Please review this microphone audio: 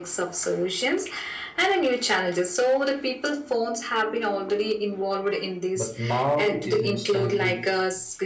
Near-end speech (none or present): present